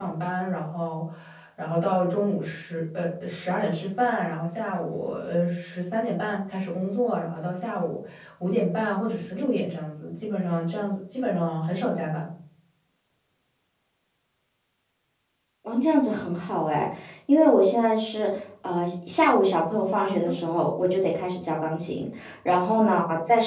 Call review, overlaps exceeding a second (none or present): none